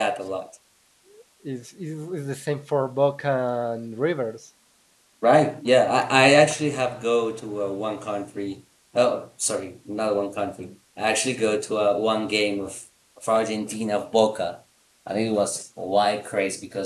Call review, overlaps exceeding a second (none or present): none